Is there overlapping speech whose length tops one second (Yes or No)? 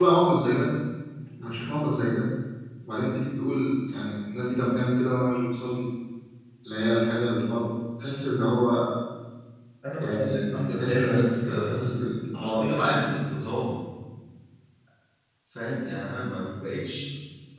Yes